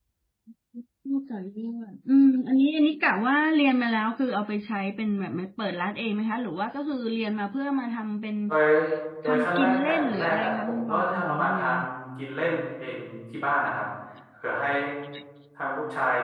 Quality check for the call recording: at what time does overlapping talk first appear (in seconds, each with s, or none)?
9.2 s